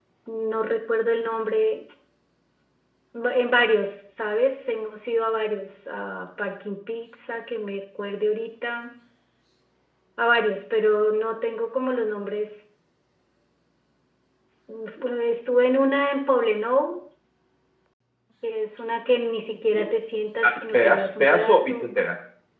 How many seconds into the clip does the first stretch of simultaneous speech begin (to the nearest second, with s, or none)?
20 s